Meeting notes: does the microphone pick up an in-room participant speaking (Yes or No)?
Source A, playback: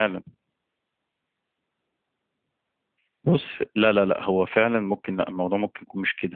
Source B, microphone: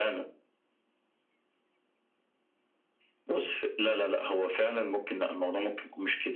No